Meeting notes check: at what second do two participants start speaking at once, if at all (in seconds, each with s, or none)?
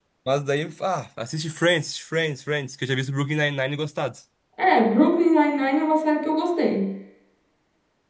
none